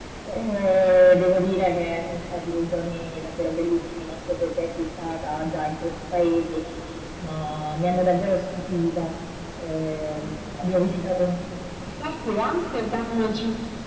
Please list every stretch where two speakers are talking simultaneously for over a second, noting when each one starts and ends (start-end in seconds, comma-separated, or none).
none